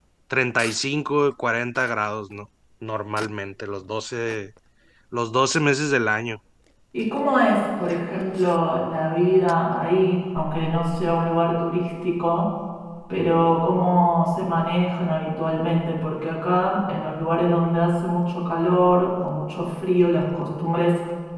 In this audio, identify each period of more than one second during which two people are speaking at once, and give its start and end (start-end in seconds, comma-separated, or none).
none